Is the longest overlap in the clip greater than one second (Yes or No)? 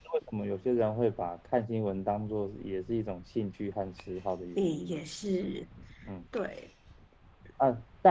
No